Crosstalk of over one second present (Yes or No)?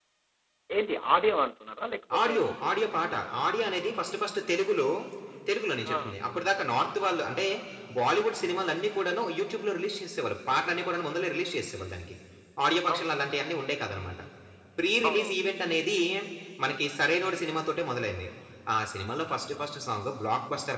No